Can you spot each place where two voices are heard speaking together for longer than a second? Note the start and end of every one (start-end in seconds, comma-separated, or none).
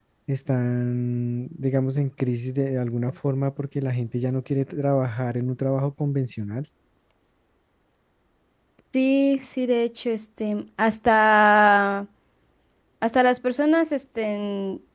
none